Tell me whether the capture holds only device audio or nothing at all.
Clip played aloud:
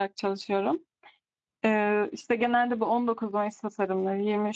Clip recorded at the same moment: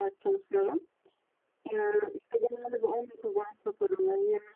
Yes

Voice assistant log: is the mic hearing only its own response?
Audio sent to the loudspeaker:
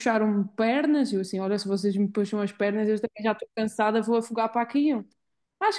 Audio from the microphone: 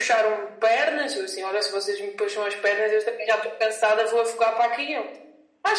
Yes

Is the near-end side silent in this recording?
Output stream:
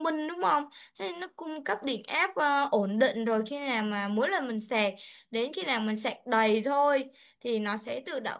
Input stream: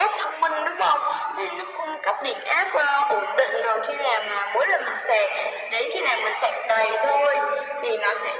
Yes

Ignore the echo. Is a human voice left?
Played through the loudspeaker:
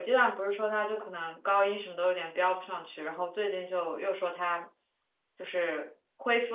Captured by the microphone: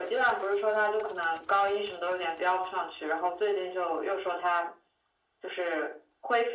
No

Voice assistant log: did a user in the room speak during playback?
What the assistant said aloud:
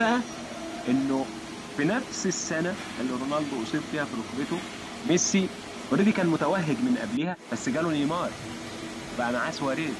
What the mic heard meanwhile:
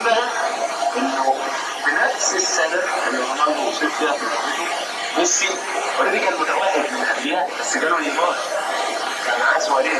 No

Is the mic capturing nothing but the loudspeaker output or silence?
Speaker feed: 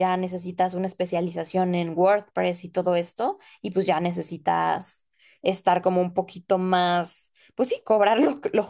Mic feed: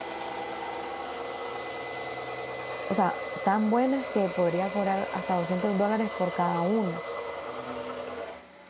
No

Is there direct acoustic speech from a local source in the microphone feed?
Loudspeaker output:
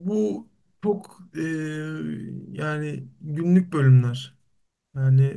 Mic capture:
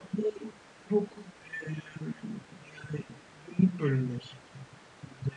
No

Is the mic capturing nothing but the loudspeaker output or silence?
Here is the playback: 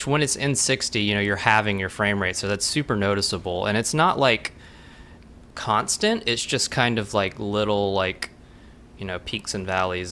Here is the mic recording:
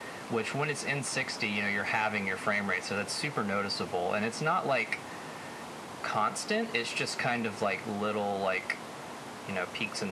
Yes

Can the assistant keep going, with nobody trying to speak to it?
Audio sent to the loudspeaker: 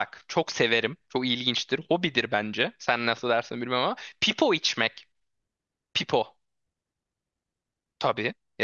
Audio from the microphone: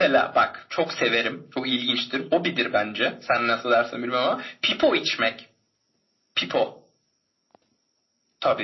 Yes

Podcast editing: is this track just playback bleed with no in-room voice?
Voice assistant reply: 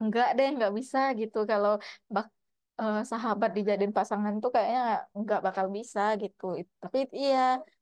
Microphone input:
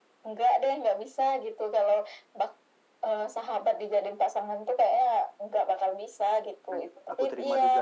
No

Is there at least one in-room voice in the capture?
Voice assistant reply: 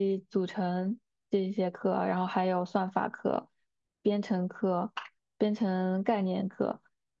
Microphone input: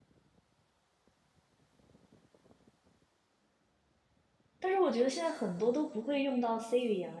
Yes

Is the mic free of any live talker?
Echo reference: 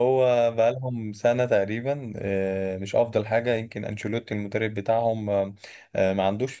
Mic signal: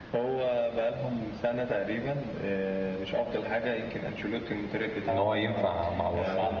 No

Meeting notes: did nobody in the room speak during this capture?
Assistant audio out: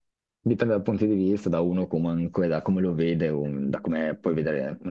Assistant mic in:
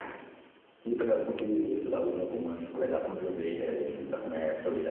Yes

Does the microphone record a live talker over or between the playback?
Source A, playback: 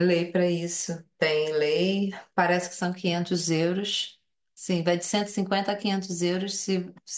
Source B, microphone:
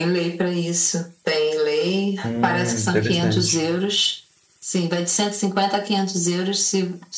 Yes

